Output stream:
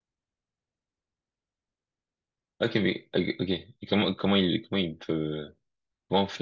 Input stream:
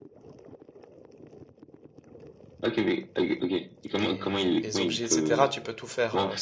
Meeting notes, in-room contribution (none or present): present